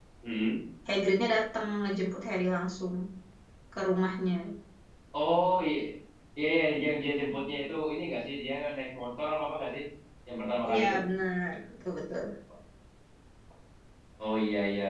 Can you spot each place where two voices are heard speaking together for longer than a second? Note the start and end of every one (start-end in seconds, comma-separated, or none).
none